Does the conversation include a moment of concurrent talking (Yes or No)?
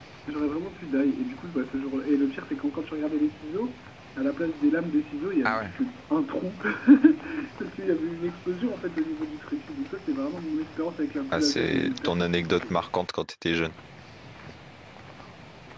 Yes